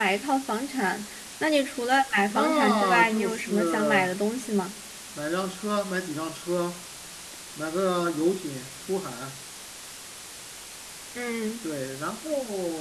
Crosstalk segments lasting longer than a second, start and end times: 2.3-4.0

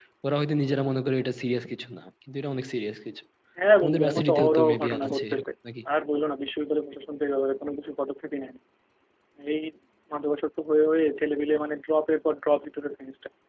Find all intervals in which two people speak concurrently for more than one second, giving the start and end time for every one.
3.8-5.5

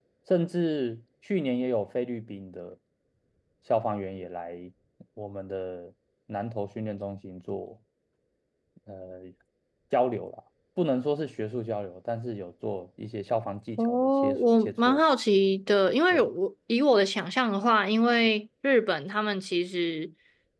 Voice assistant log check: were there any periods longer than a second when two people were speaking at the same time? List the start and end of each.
13.8-15.0

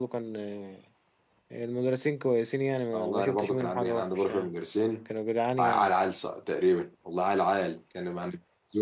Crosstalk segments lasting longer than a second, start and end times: 2.9-4.5

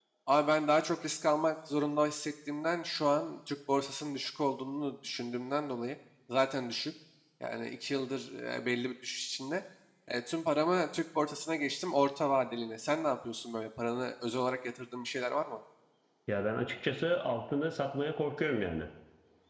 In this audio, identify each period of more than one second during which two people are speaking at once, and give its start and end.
none

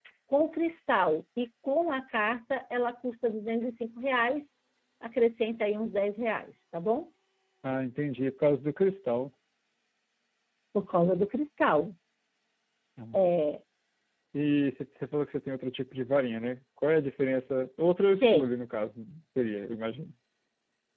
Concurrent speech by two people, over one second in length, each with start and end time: none

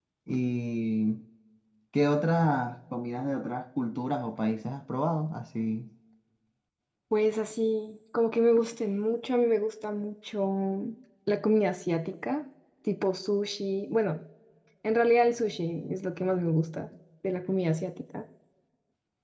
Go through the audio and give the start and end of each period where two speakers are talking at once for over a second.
none

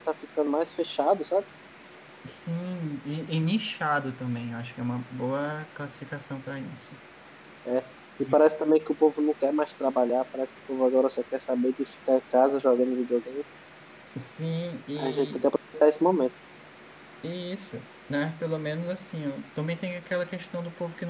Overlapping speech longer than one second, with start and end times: none

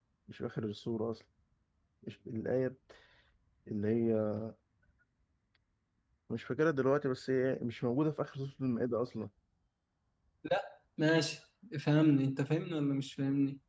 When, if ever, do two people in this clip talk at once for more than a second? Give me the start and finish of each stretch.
none

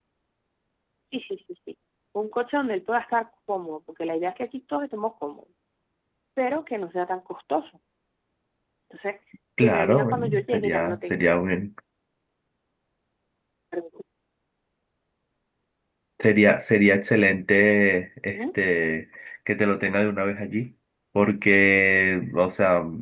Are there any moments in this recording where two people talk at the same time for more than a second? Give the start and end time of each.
9.6-11.3

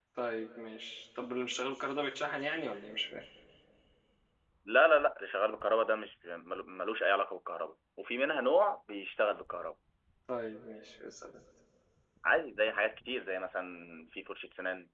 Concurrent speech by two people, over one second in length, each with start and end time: none

